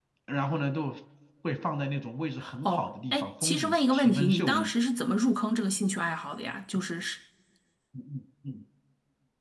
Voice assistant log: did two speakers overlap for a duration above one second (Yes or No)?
Yes